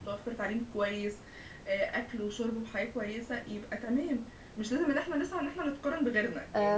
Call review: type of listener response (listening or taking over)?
taking over